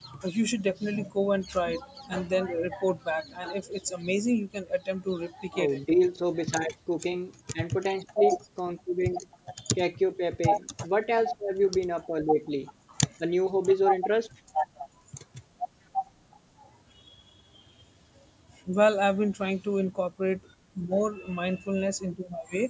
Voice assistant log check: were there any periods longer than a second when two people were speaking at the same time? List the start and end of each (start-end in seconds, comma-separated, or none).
none